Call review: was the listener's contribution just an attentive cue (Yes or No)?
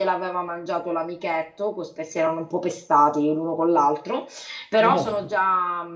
Yes